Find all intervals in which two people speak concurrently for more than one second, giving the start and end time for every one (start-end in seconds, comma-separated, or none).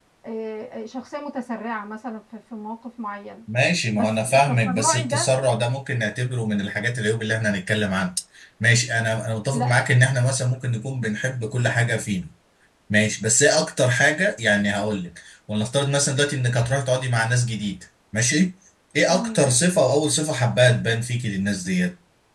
3.9-5.3